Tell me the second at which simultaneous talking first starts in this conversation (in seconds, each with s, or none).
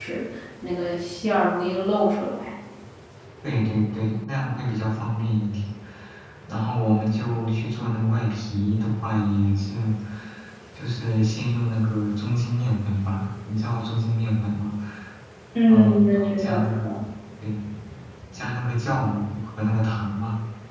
15.7 s